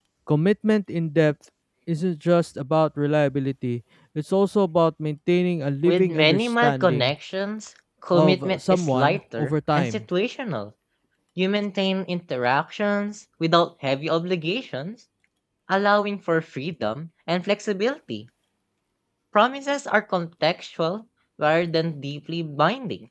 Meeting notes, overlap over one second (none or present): present